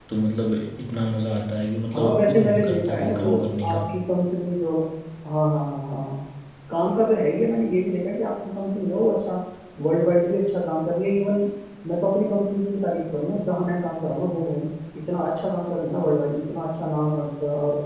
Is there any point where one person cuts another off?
Yes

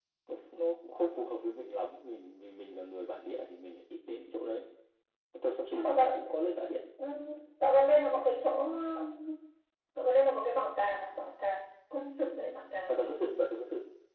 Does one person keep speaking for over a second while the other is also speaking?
No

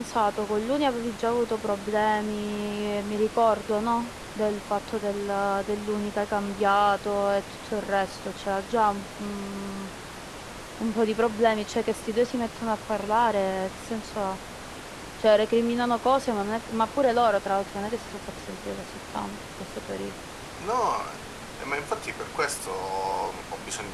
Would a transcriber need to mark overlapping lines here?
No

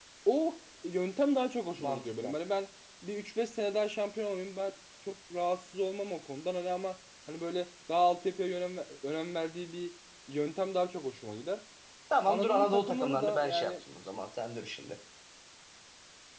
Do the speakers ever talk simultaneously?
Yes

